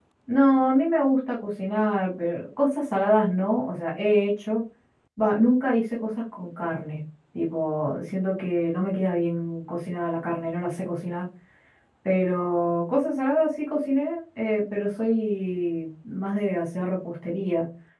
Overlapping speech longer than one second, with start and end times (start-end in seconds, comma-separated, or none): none